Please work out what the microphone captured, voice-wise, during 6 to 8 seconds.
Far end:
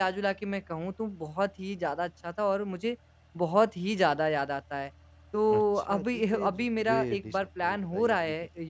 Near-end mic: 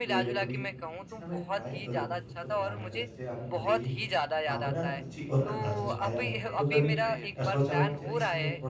both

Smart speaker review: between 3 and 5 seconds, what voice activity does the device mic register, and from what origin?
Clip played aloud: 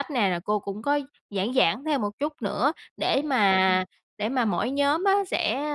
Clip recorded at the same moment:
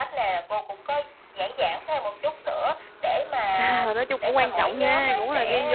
both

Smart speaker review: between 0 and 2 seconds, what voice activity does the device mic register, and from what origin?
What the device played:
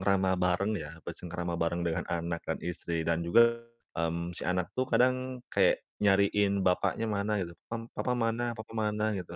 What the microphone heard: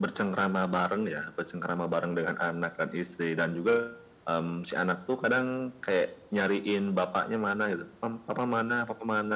echo only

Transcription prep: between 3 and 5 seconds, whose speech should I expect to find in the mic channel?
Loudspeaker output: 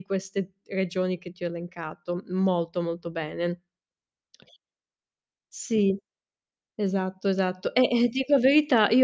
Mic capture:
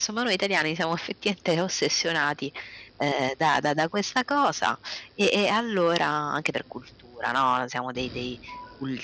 user only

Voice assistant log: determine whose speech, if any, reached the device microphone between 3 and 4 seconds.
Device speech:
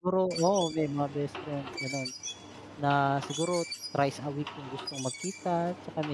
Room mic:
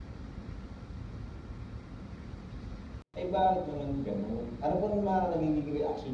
user only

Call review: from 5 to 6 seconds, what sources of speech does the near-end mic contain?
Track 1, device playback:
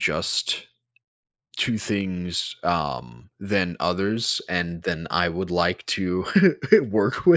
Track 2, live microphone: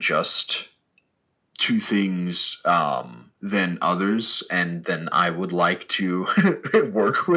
echo only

